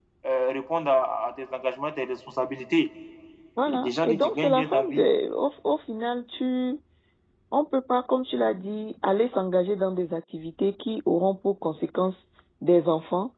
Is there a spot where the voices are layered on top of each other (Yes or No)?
Yes